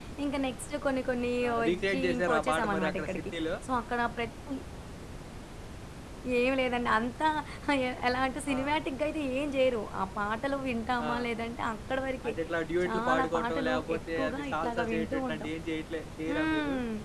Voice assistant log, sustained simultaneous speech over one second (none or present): present